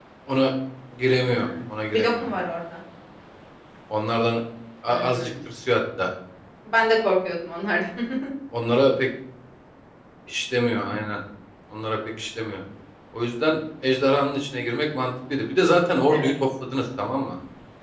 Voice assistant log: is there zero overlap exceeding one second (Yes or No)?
Yes